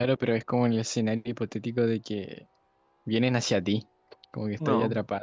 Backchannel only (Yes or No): No